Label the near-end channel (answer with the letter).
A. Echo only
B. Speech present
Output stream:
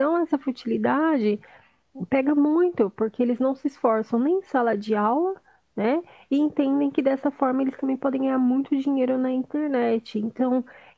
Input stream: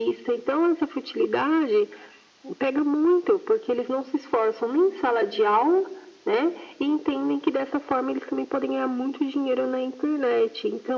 A